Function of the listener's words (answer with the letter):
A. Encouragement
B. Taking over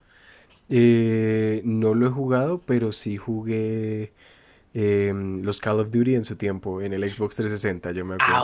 B